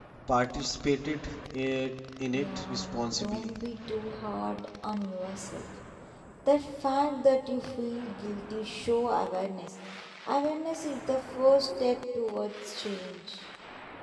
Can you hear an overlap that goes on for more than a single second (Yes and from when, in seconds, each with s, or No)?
Yes, from 2.3 s